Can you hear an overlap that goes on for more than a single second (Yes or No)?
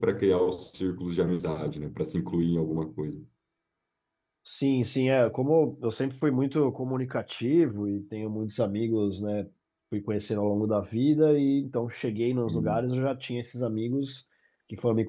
No